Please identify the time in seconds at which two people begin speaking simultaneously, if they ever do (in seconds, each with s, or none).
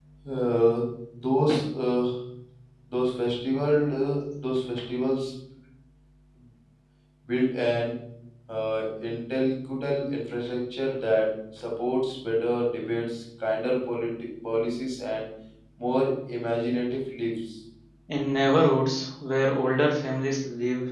none